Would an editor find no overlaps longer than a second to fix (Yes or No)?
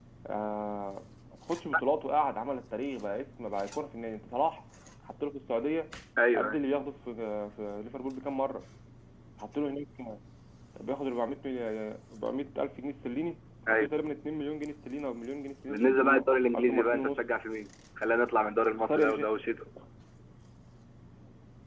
No